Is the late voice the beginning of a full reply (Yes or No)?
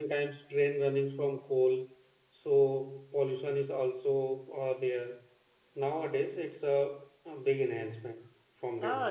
Yes